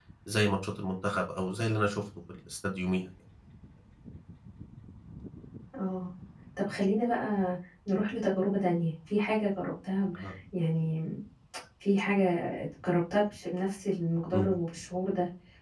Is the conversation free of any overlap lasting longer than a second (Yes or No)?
Yes